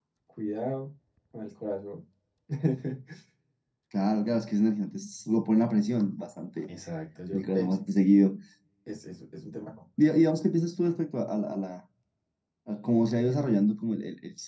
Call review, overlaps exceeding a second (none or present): none